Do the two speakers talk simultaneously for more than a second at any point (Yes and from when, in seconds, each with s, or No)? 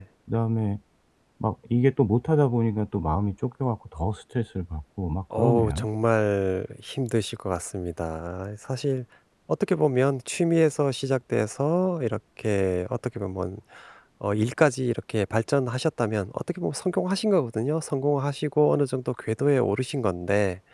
No